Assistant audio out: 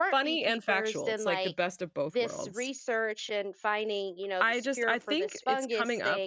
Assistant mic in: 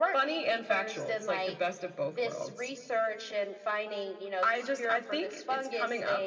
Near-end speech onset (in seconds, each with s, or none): none